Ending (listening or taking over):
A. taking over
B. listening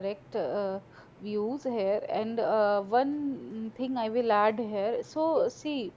B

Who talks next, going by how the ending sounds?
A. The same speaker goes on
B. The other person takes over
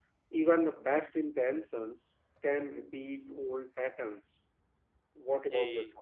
B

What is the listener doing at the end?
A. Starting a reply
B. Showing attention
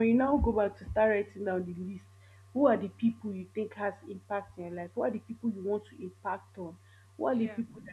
B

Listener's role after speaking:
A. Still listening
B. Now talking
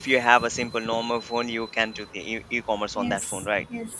B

